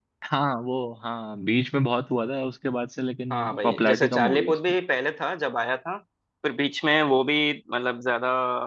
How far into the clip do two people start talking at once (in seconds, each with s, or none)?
3.3 s